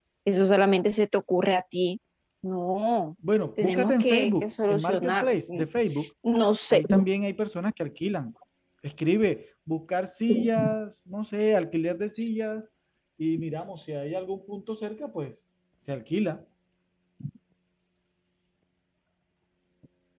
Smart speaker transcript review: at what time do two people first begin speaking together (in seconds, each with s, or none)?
3.6 s